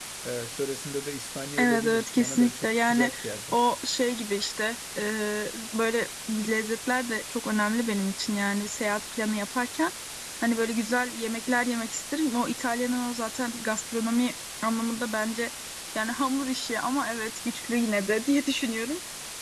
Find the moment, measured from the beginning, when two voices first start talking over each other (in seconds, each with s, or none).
1.6 s